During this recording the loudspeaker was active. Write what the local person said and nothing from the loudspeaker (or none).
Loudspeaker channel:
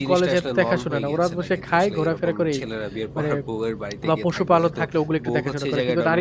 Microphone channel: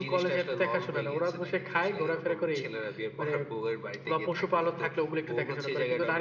none